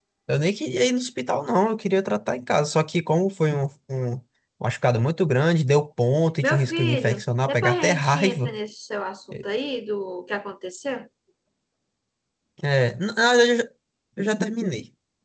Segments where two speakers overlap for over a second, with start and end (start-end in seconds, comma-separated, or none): 6.4-8.5